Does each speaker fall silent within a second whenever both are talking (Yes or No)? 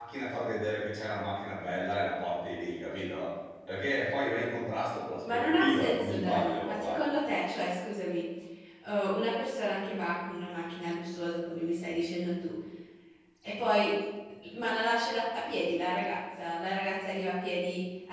No